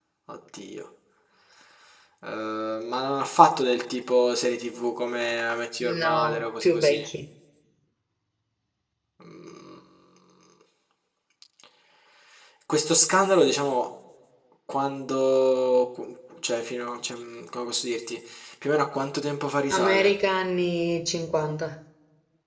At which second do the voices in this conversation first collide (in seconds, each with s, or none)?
5.8 s